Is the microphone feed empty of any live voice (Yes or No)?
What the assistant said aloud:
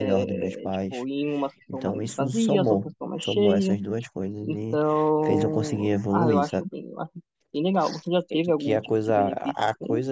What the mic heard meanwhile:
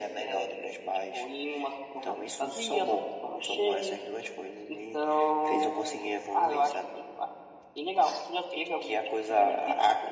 Yes